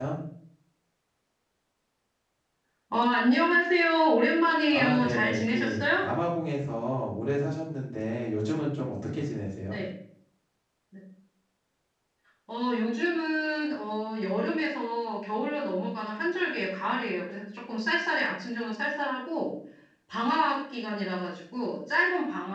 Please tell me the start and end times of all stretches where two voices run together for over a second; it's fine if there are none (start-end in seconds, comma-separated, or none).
4.7-6.1